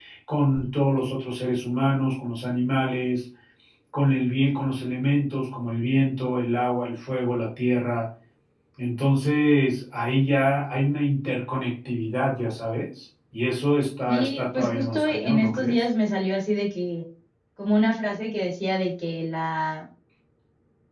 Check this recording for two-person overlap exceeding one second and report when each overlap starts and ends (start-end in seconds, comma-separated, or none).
14.1-15.8